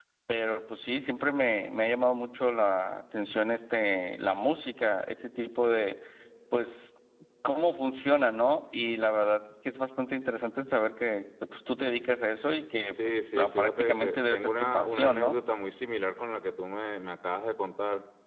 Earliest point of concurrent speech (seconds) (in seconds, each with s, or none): 13.0 s